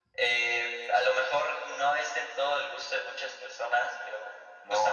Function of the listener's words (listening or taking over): taking over